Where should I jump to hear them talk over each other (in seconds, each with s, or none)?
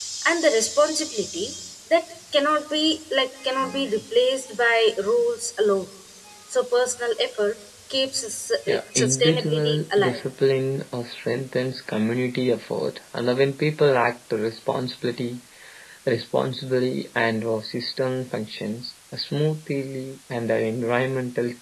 8.7 s